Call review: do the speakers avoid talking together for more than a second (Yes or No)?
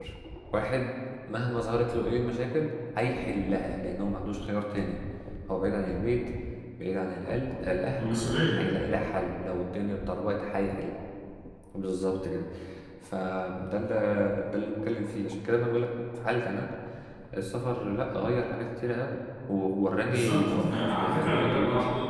No